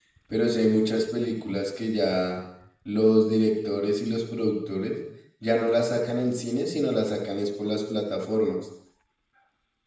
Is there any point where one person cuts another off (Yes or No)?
No